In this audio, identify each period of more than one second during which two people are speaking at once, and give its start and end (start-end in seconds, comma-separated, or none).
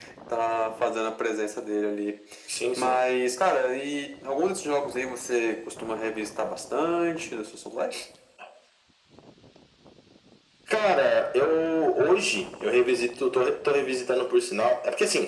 none